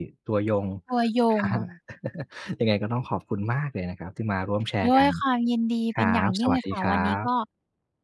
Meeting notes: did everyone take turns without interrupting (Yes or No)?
No